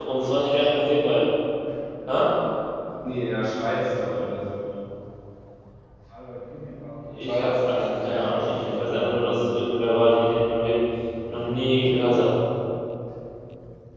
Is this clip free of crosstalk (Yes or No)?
No